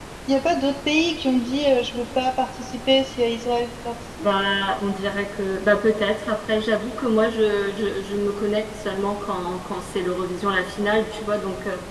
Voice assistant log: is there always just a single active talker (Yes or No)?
Yes